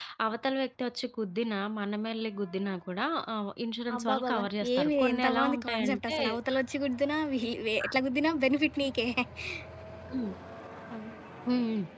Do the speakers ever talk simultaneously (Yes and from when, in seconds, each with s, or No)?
Yes, from 3.9 s